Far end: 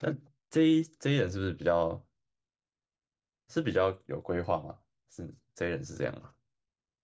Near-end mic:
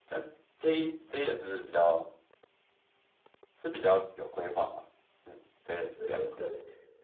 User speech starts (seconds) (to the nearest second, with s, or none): 6 s